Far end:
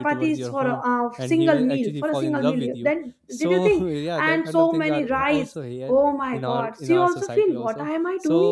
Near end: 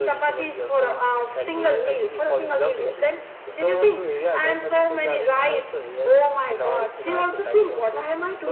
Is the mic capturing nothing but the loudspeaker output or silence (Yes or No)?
Yes